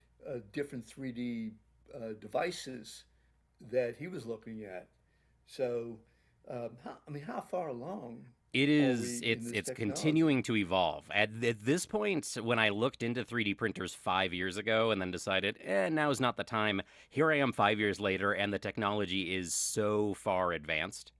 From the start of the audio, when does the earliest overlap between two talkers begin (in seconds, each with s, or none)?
8.8 s